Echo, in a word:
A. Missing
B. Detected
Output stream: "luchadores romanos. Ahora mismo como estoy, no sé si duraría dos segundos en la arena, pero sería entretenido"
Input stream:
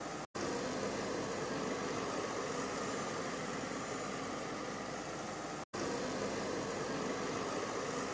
A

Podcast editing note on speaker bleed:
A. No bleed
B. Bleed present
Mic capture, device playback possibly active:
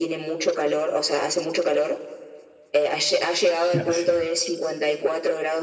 B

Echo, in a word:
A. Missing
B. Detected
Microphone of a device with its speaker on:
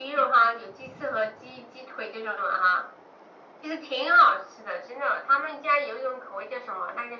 B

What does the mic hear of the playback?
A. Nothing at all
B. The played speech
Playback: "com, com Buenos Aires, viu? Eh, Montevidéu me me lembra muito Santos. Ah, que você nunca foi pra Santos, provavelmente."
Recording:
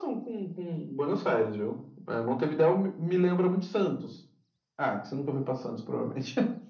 B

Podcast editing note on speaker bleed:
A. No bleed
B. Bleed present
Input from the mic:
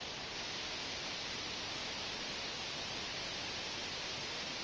A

